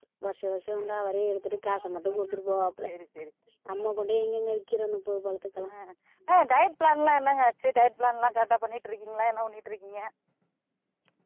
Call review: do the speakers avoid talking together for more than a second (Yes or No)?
Yes